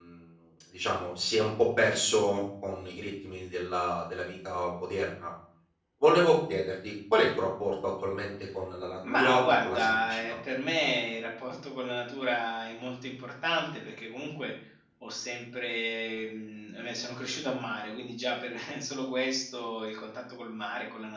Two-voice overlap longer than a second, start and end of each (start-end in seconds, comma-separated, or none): 9.1-10.4